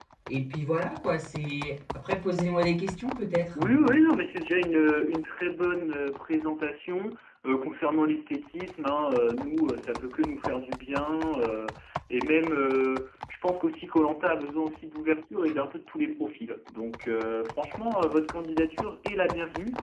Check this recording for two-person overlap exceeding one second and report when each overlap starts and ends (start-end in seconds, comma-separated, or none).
none